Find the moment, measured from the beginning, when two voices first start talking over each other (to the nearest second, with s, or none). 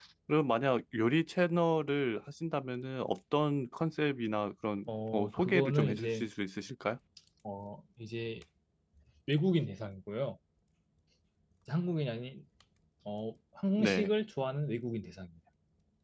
5 s